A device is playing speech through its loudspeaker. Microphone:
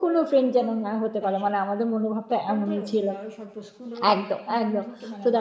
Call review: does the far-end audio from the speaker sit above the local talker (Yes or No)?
No